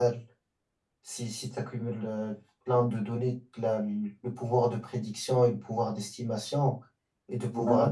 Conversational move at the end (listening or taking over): listening